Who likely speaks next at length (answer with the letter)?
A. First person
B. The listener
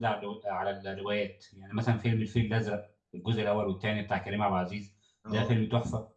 A